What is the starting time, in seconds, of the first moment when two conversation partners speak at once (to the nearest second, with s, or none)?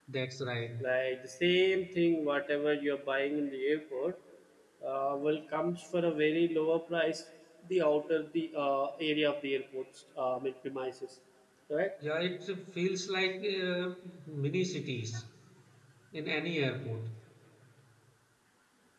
none